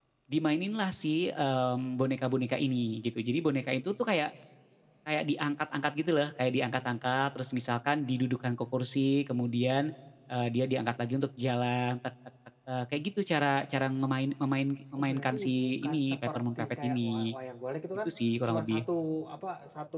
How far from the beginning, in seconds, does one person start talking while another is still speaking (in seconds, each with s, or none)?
14.9 s